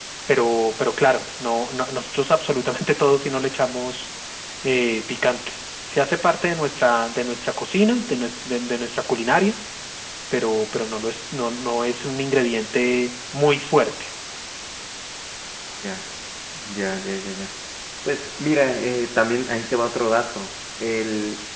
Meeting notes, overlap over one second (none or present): none